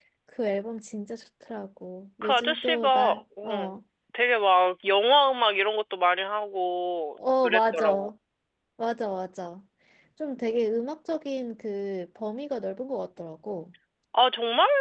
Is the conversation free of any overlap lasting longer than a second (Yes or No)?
No